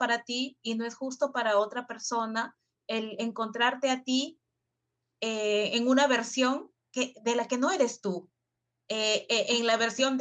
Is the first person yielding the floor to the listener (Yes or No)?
No